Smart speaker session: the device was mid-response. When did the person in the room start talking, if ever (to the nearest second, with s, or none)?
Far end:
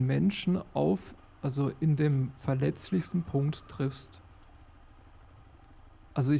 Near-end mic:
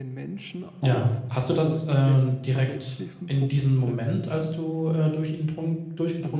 1 s